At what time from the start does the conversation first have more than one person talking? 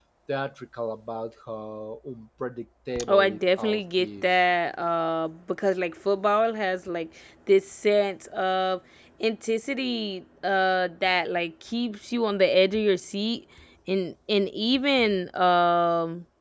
3.0 s

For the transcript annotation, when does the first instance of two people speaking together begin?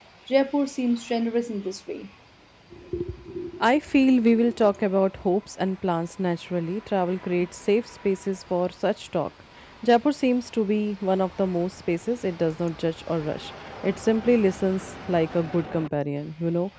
none

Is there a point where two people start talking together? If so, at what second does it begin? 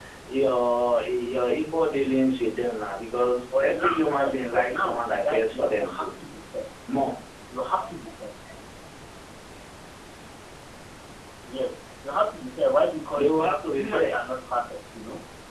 3.6 s

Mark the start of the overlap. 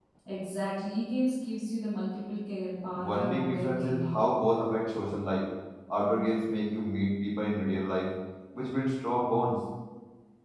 2.9 s

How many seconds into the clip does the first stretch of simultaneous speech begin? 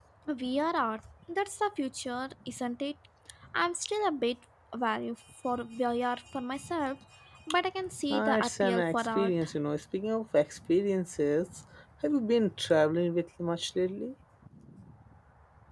8.1 s

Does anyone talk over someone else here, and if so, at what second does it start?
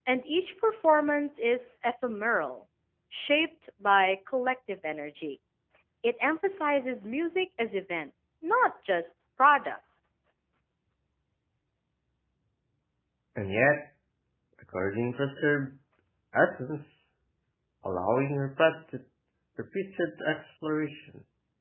none

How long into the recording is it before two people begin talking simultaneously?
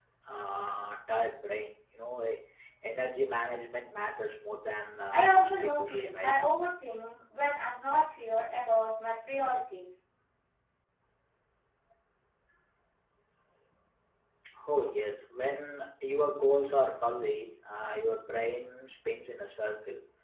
5.1 s

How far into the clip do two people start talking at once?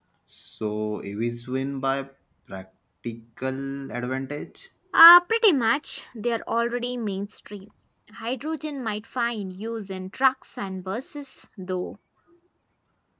none

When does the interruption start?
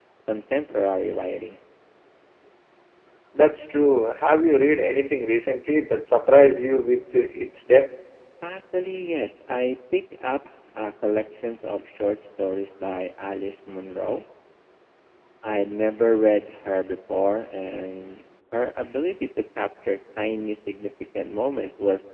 none

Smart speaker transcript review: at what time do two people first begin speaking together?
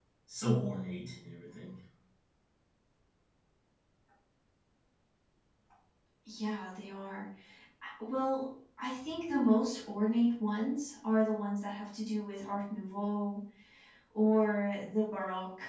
none

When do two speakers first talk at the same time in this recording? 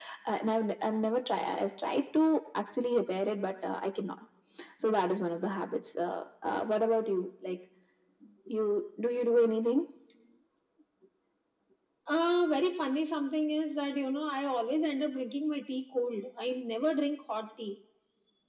none

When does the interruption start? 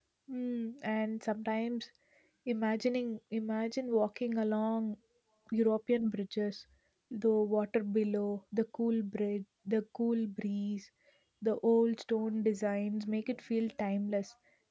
none

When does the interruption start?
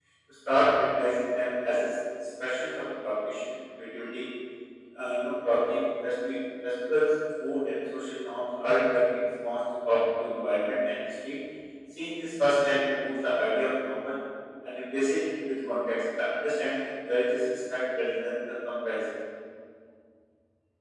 none

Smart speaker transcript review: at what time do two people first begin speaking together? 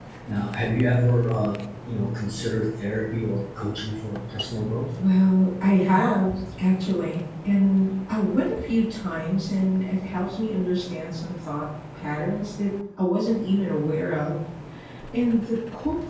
none

